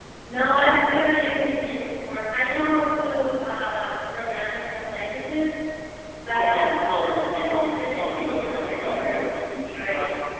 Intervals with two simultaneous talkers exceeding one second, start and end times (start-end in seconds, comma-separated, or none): 6.3-9.2